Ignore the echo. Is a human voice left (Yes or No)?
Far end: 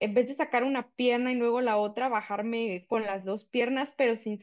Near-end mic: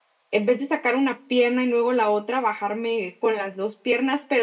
No